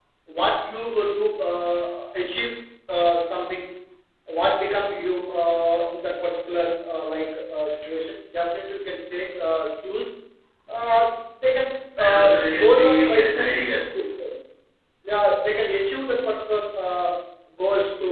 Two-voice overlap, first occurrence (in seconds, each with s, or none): 12.0 s